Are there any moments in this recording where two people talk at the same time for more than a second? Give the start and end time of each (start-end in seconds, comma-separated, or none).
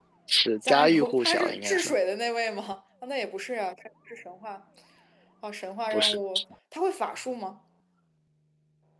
0.6-1.9